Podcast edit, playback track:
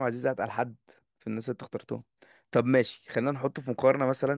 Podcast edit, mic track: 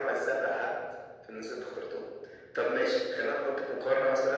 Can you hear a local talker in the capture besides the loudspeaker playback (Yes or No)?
No